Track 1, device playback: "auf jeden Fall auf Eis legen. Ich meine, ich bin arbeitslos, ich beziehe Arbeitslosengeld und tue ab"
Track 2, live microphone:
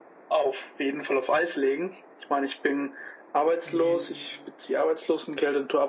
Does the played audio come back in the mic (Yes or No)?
Yes